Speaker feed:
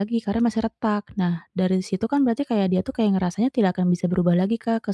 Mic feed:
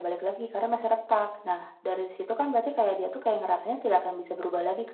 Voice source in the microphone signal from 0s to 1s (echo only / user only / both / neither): echo only